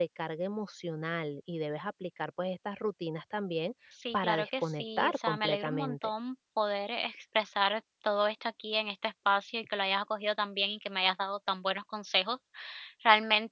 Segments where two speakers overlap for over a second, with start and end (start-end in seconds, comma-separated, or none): 4.1-6.0